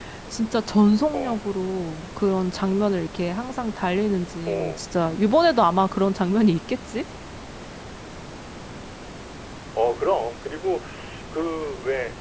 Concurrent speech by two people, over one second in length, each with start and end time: none

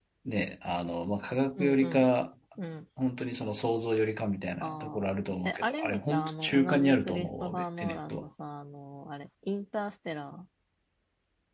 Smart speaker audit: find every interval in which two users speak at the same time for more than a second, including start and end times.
5.4-8.3

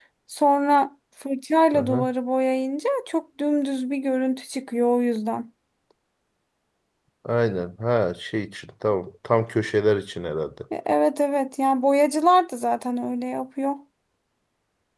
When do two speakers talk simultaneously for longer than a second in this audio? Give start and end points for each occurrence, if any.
none

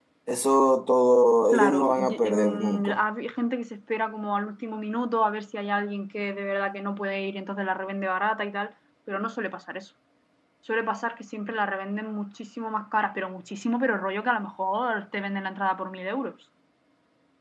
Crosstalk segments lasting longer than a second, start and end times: 1.5-3.0

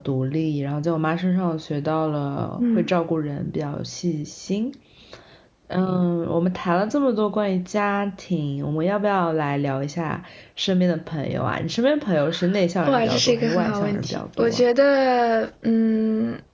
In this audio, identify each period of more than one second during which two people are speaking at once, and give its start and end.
12.9-14.6

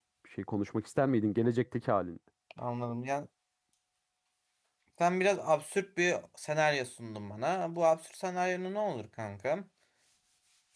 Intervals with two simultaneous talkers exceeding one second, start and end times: none

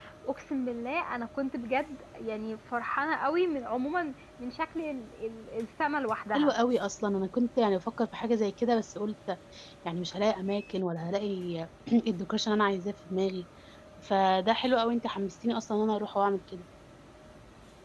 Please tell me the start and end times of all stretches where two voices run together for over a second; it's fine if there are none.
none

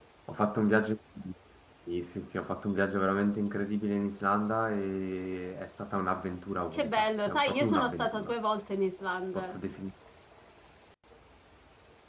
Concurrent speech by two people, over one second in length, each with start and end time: 6.7-8.3

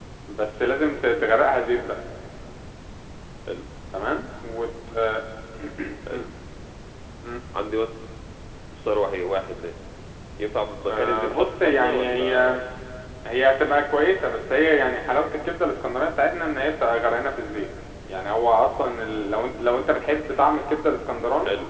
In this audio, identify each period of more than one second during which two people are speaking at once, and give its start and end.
10.8-12.5

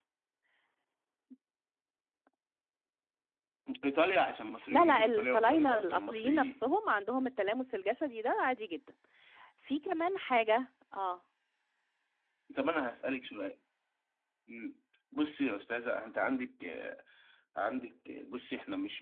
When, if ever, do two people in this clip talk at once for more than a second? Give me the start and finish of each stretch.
4.7-6.6

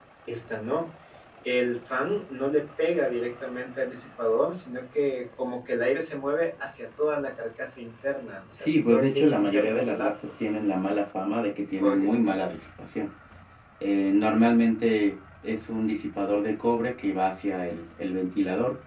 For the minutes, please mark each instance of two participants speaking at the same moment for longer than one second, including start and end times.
8.6-10.1

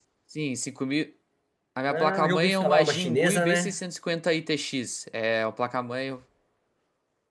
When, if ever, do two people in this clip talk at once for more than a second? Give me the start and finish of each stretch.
1.9-3.8

